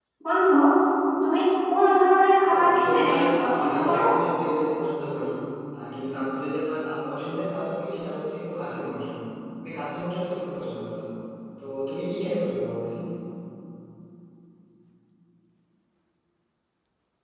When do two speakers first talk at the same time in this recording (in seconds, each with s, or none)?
2.4 s